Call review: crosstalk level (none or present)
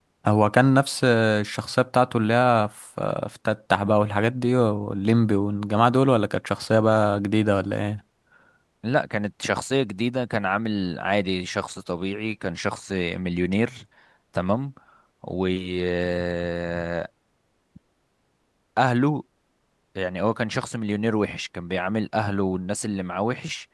none